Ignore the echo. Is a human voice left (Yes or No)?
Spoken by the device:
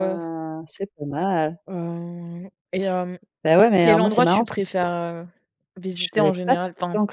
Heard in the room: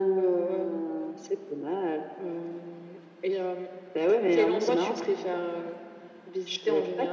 No